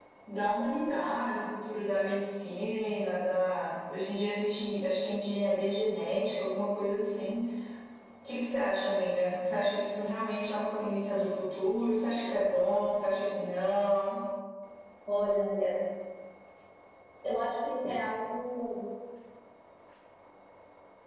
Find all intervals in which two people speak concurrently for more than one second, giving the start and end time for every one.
none

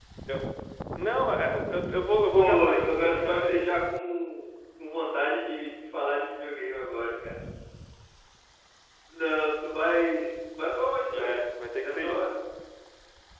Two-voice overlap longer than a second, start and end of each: 2.3-3.6

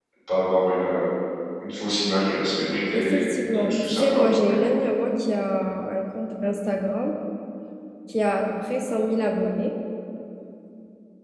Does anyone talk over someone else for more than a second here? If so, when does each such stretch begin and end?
2.9-4.7

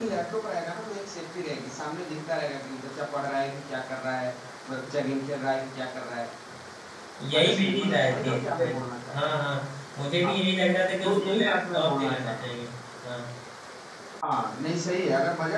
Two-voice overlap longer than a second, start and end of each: 7.4-8.6, 11.0-12.6

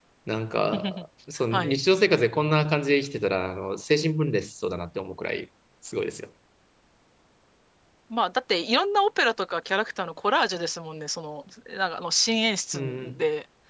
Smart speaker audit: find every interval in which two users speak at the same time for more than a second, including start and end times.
none

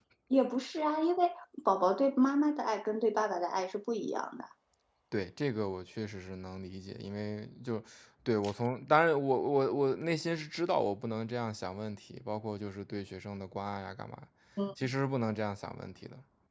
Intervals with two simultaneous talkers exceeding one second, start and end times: none

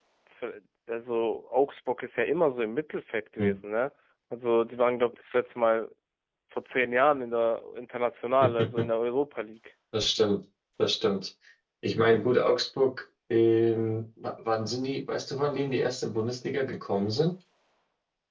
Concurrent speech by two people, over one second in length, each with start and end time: none

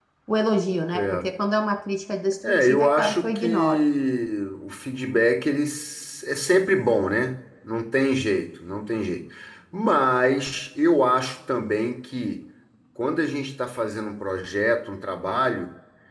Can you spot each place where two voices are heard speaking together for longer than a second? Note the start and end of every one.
2.4-3.8

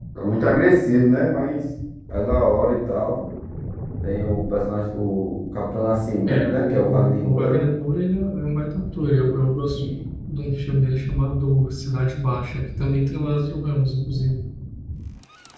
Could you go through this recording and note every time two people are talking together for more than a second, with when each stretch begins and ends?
6.2-7.6

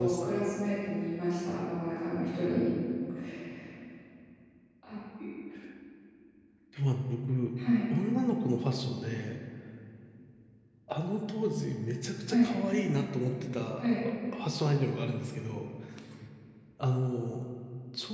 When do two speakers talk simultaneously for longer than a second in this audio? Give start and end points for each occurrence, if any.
none

